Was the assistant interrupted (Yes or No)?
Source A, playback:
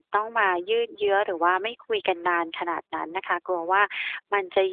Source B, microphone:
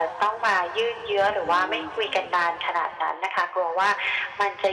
Yes